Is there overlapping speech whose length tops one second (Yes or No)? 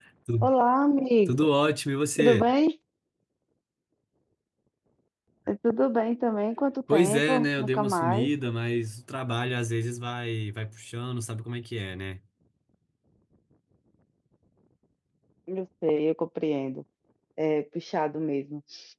Yes